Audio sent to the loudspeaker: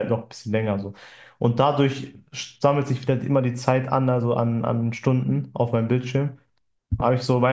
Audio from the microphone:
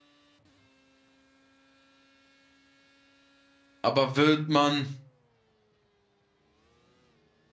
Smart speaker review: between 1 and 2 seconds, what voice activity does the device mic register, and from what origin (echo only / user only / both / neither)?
neither